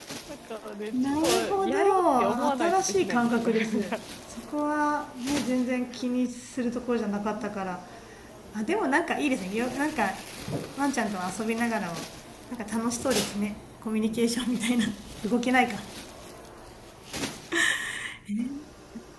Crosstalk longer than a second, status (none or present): present